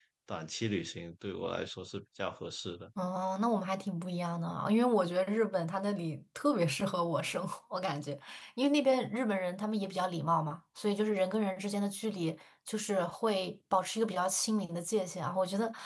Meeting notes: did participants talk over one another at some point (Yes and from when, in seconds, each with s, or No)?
No